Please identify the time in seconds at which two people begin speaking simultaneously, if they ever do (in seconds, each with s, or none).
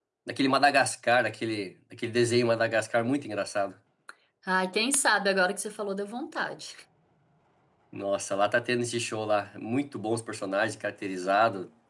none